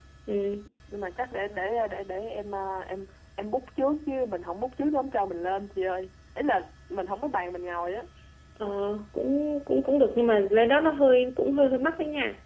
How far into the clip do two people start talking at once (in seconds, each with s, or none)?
none